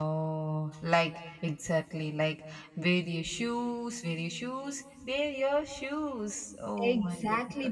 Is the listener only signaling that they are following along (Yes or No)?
No